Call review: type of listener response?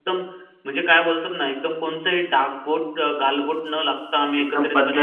taking over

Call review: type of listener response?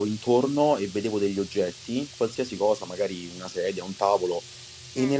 listening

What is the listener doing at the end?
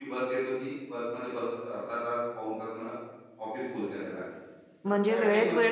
taking over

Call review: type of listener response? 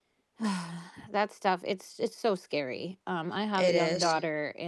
listening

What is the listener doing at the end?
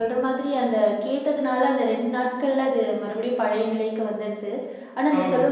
listening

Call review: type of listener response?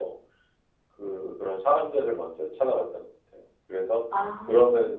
listening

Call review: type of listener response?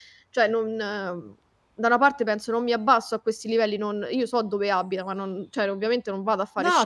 listening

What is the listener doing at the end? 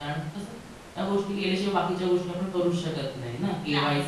listening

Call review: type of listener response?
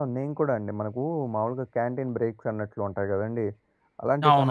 listening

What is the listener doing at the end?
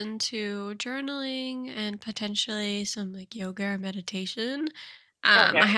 listening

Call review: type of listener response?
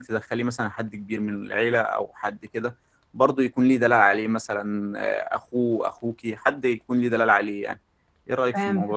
taking over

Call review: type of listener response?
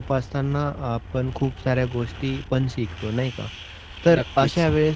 listening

